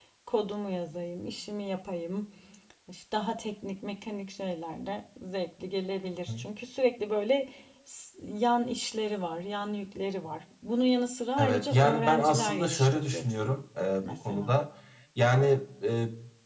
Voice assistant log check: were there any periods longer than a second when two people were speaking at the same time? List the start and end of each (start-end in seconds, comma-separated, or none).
11.4-13.6